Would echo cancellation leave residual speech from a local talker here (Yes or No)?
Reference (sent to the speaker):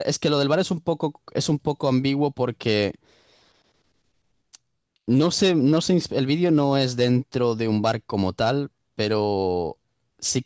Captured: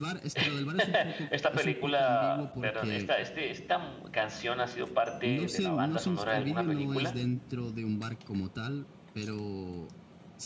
Yes